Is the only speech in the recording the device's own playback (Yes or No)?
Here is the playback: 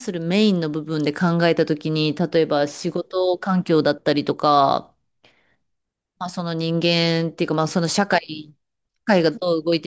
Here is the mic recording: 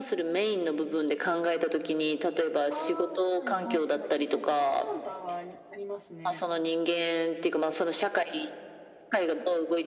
No